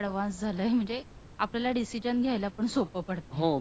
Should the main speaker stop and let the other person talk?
Yes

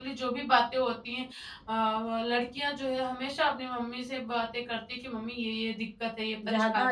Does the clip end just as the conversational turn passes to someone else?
Yes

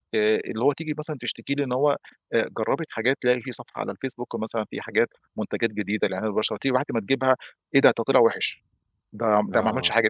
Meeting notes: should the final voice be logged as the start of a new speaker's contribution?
No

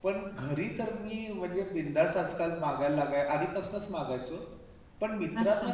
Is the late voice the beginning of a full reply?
No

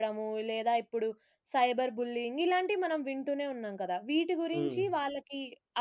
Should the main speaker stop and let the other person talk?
No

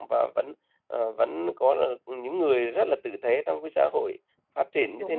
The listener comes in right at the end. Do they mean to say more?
No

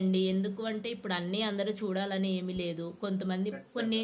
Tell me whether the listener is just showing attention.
Yes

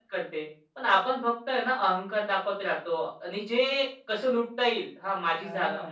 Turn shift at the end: No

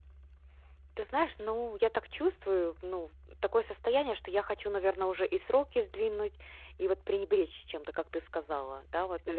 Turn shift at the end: No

